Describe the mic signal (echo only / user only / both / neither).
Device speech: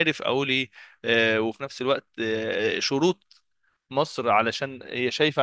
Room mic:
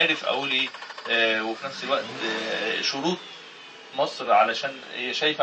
echo only